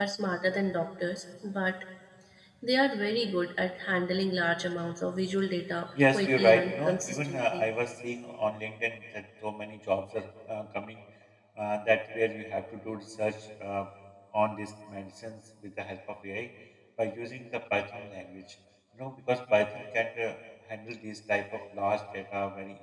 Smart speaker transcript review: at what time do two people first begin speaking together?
6 s

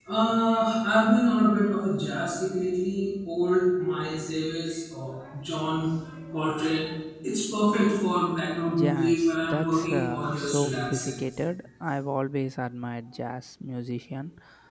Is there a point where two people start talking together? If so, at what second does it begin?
9 s

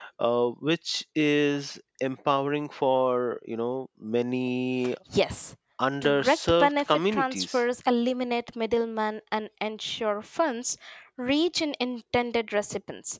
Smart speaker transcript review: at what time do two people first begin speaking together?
6 s

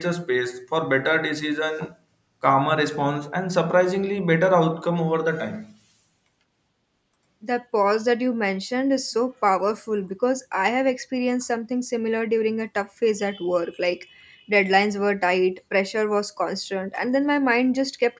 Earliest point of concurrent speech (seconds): none

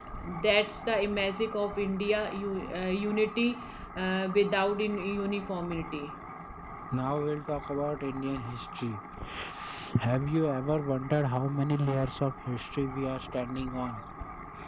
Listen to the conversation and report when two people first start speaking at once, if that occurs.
none

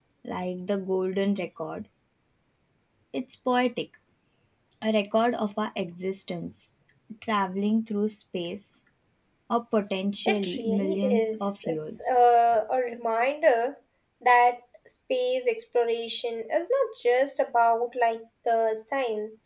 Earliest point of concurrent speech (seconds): 10 s

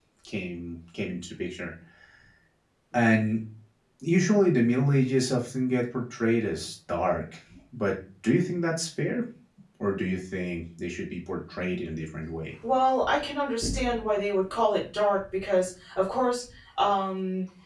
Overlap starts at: none

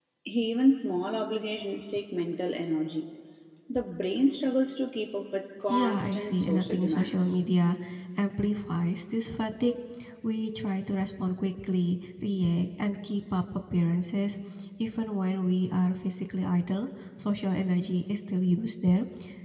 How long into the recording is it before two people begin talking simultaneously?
6 s

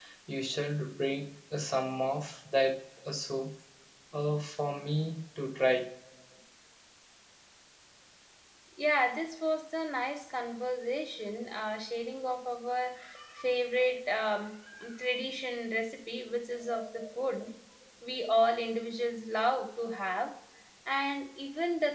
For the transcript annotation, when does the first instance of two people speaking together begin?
none

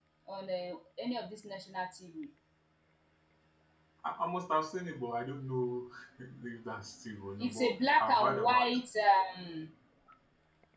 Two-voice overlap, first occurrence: 7 s

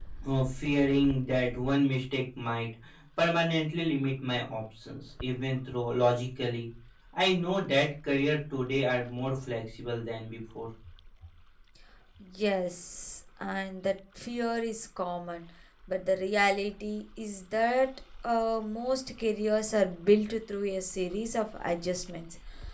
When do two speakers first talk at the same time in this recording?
none

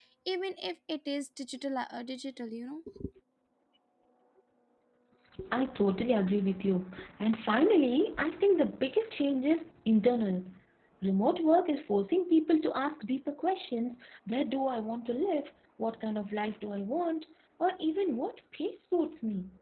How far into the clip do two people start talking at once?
none

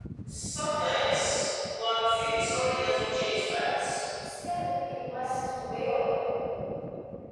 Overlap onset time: none

